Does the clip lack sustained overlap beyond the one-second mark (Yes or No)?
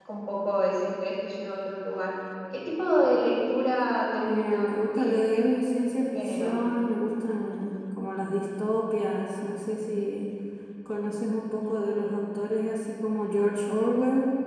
No